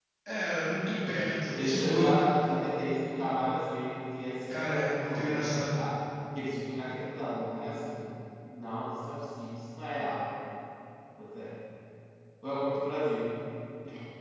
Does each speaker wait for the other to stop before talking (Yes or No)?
No